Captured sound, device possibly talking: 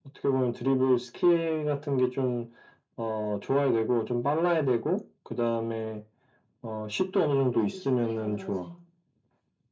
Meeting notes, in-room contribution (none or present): present